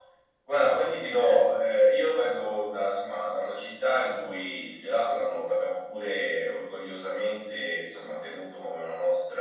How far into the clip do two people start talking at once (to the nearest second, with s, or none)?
none